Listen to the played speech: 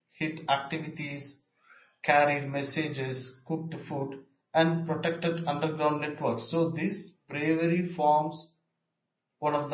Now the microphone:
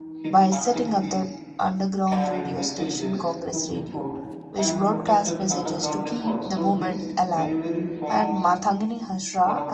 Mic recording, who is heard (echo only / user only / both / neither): both